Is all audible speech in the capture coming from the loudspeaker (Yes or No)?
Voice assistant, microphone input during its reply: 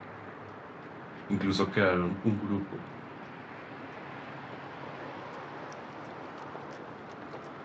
No